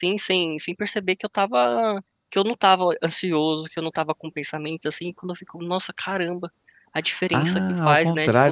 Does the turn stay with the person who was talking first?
No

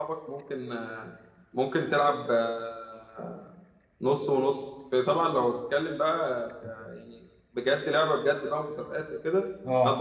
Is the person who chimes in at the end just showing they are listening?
Yes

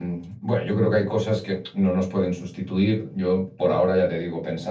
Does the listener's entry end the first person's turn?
No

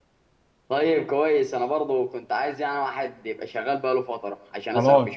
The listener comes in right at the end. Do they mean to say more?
Yes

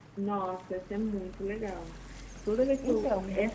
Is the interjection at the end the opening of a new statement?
No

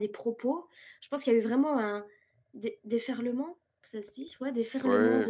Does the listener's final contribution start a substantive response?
No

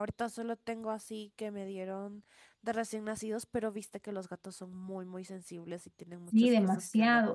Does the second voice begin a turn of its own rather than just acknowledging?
Yes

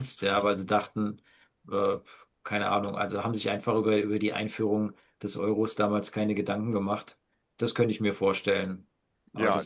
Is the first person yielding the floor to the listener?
Yes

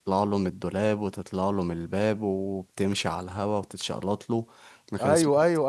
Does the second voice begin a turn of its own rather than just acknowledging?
Yes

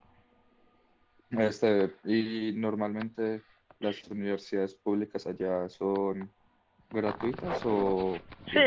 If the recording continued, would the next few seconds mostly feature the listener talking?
Yes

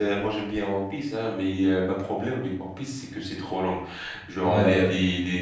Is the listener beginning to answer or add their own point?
No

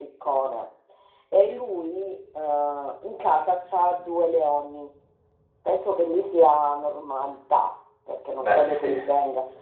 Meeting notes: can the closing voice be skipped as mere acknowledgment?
Yes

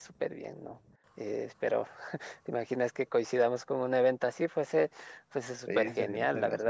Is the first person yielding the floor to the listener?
Yes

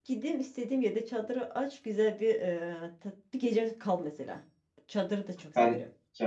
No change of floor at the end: No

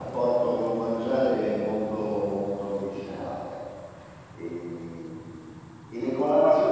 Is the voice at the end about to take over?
No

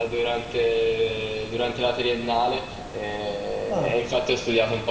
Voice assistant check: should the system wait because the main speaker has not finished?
Yes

